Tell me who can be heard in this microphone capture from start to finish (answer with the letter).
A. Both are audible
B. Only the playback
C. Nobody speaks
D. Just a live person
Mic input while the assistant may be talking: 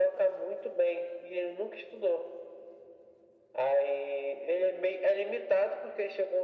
B